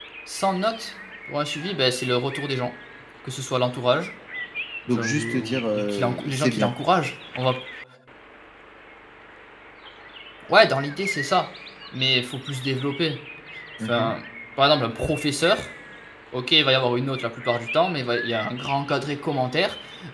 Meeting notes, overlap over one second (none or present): present